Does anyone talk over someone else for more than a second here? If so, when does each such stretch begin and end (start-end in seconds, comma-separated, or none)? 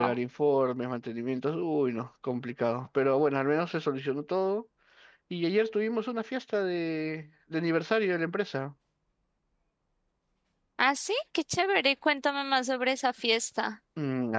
none